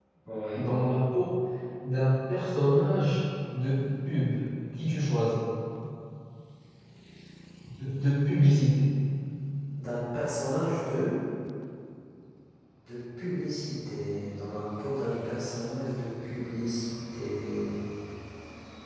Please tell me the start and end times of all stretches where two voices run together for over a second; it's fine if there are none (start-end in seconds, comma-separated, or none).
none